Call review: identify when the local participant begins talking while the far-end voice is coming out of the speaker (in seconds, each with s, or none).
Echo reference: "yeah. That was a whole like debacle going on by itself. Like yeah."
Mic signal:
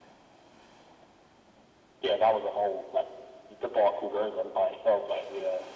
none